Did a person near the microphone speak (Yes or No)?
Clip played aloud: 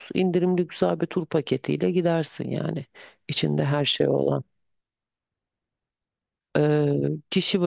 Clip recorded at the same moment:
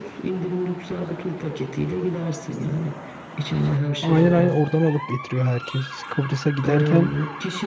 Yes